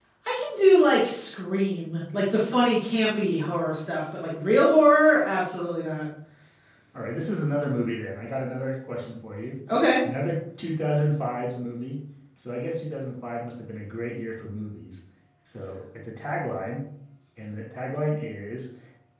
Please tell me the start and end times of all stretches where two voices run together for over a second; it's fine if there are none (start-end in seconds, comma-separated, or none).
none